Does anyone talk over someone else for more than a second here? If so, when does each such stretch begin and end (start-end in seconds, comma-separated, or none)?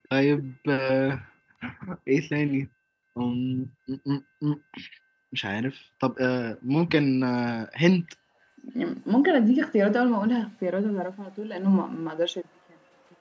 none